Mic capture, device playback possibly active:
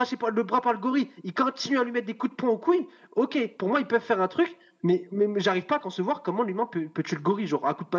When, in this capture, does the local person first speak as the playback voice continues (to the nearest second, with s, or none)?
none